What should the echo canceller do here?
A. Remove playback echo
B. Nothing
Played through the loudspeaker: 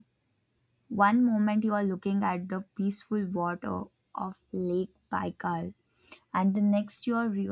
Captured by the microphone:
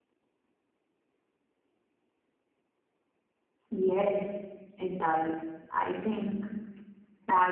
B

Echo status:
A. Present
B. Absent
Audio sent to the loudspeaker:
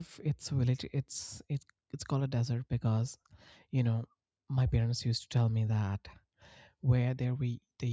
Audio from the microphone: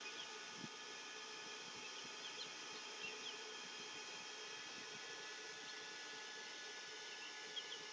B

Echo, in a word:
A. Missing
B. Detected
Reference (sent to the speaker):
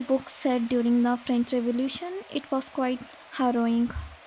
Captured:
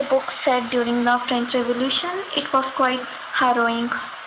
B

